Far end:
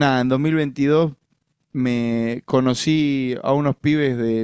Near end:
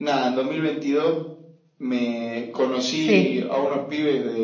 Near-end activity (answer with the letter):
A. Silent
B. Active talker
B